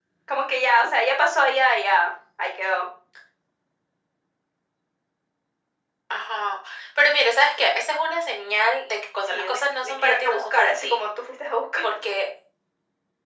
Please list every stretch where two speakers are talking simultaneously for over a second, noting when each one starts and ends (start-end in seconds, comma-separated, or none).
9.2-11.0